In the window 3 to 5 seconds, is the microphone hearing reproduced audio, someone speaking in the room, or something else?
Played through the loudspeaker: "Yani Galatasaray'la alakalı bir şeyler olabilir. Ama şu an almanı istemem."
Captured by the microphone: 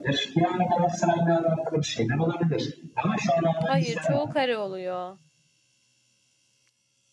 both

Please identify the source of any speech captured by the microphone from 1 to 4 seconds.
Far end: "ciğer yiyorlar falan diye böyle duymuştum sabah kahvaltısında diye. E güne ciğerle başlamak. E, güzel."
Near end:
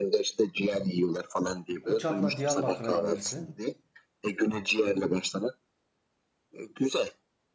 both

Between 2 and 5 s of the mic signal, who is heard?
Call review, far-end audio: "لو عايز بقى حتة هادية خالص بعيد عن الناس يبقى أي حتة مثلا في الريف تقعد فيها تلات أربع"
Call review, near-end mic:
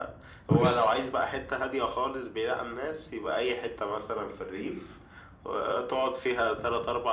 echo only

